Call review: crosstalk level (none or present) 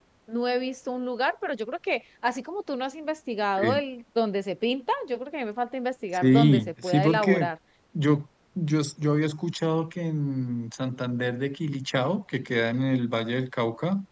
present